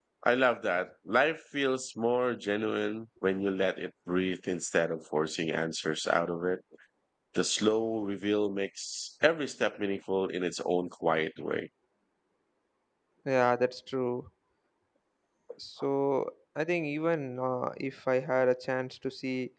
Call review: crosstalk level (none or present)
none